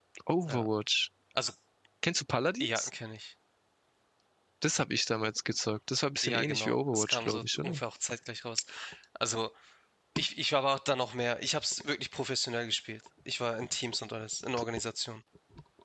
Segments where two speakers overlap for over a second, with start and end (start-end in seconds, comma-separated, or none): 6.2-7.8